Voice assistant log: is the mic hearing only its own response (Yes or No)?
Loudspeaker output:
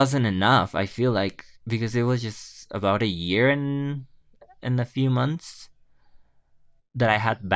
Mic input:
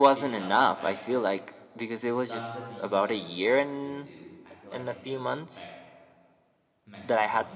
No